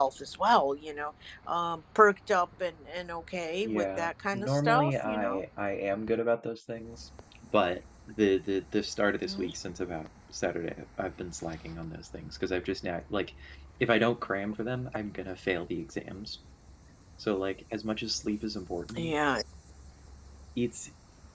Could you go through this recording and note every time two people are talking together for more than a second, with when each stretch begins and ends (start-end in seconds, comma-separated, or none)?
3.6-5.4